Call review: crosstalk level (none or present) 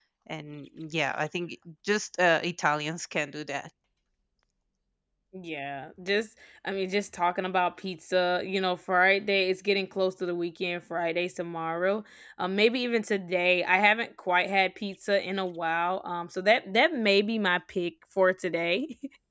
none